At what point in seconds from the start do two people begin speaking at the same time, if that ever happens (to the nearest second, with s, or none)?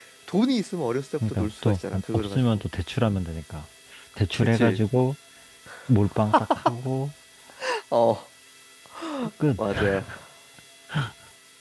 1 s